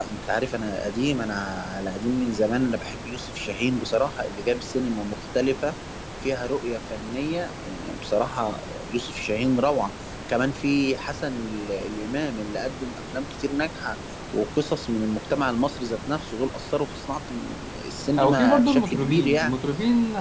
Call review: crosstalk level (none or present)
present